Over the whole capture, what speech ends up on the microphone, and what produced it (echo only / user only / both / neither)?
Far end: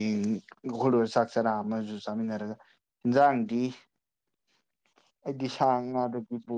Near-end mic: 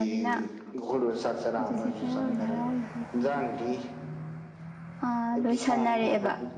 both